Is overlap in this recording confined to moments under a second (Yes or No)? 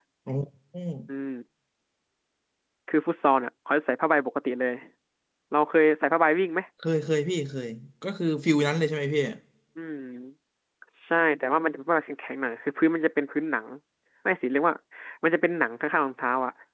Yes